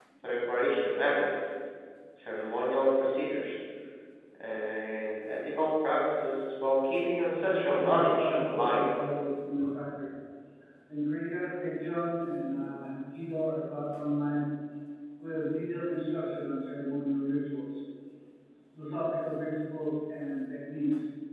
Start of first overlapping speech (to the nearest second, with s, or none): 7 s